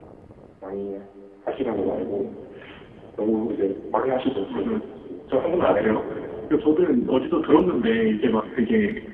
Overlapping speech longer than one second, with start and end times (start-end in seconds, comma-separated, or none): none